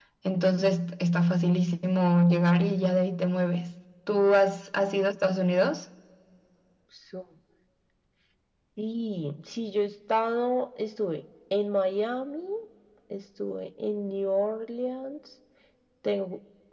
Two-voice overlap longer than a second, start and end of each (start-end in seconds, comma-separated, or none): none